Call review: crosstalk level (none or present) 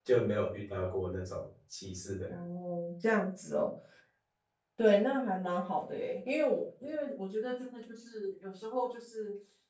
none